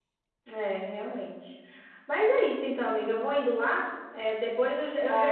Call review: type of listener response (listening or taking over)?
listening